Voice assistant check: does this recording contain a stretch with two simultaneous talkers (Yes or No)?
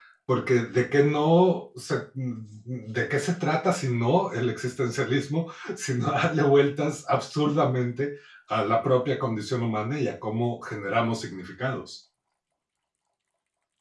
No